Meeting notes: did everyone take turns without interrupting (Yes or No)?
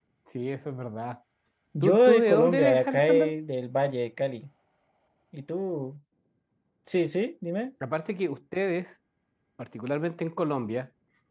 No